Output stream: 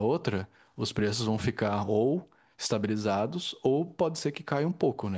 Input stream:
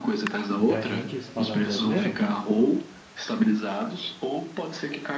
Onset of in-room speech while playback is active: 0.6 s

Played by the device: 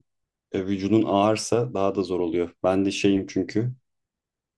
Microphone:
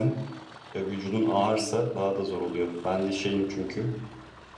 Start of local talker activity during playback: none

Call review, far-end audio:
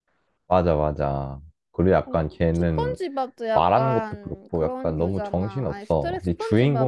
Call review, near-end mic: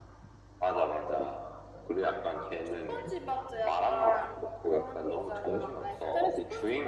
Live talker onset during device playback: none

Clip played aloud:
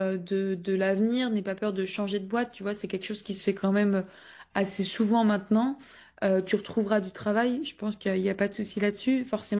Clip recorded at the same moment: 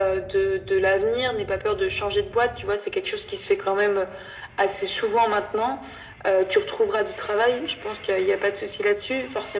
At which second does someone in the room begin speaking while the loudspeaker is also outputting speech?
none

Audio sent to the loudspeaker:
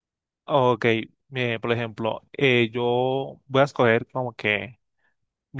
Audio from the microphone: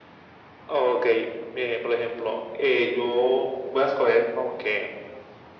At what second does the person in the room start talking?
none

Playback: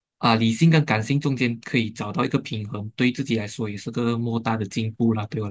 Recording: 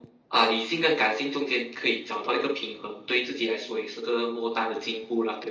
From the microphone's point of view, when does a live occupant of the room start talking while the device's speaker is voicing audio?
none

